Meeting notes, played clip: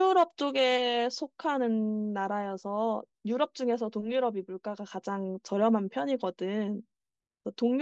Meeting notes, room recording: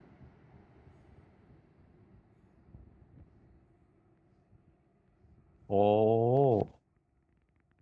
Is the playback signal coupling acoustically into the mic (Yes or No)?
No